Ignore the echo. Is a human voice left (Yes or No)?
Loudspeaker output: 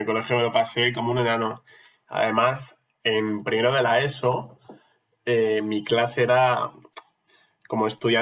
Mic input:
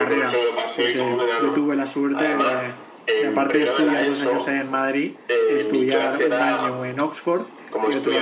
Yes